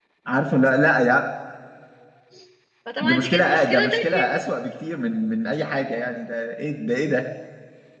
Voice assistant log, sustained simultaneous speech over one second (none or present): present